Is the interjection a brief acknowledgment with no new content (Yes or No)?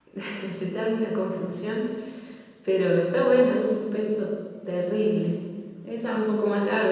Yes